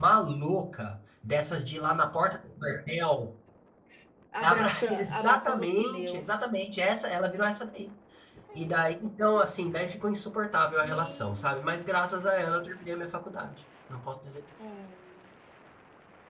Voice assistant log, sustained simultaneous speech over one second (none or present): present